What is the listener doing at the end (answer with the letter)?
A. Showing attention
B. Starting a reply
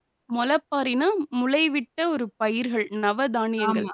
B